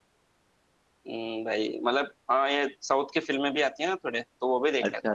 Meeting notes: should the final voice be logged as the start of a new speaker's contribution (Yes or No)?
Yes